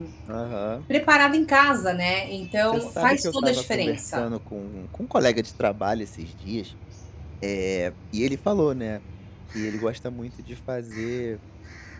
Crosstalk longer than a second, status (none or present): present